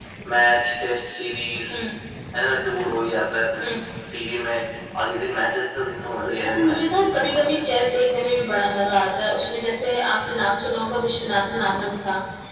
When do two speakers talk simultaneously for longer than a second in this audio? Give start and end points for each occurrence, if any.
none

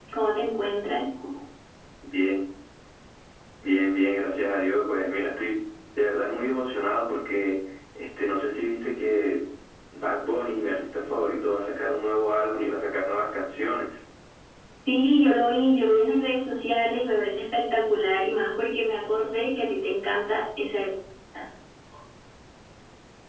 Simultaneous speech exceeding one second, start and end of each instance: none

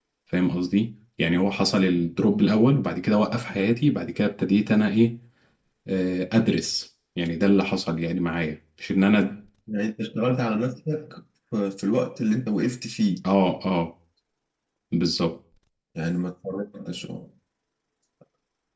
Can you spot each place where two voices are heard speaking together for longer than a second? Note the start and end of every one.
none

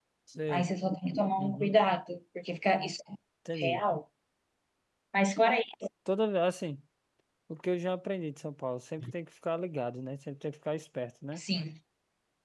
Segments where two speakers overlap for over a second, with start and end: none

